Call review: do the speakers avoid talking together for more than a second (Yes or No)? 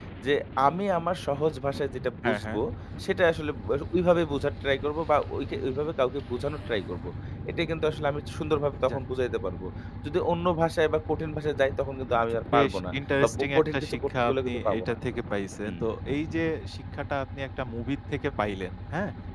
No